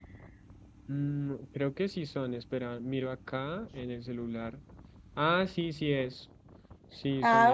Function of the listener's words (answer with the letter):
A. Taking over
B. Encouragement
A